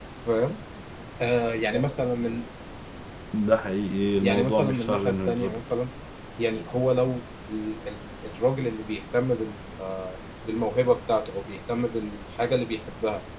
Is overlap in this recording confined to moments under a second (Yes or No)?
No